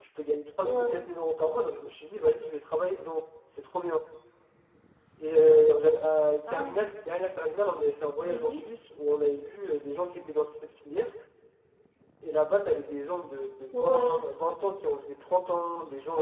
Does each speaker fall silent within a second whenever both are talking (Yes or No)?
Yes